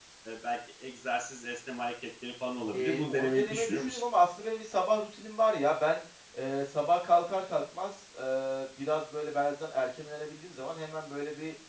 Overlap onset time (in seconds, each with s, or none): 2.7 s